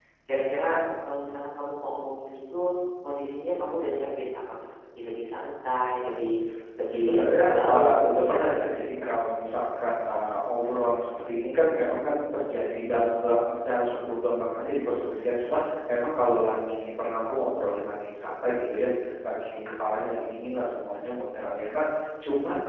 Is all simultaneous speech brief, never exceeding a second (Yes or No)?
No